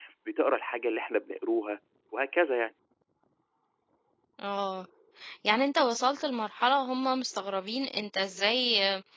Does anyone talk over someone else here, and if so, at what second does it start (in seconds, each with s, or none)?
none